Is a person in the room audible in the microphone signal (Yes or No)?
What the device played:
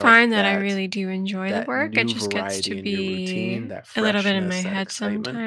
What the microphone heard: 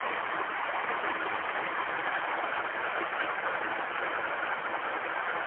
No